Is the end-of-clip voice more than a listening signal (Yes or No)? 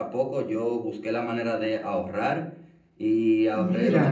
No